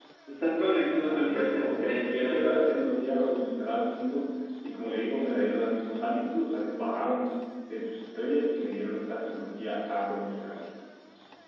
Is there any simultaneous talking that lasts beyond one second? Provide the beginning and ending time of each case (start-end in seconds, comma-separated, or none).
1.0-2.8